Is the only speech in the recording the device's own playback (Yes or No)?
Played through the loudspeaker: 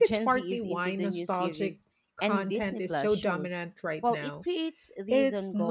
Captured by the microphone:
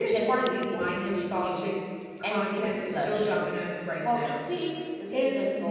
Yes